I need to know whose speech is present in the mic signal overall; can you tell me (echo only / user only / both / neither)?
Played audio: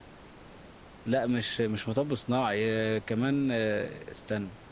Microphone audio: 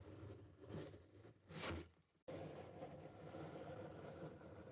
neither